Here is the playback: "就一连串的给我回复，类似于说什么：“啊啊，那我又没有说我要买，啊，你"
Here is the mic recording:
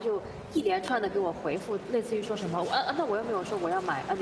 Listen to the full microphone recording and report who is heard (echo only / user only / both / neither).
echo only